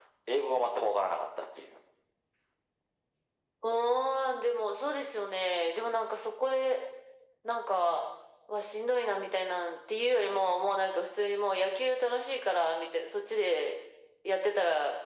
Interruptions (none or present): none